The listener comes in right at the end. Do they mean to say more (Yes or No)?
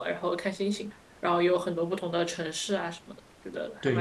Yes